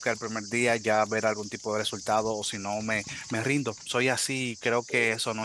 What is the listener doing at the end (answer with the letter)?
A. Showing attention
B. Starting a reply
B